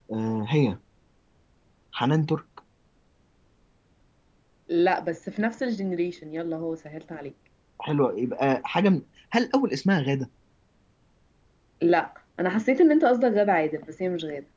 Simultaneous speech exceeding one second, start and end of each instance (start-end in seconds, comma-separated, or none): none